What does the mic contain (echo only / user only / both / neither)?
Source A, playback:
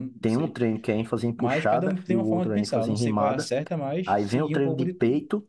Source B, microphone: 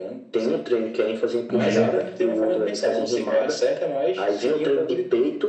both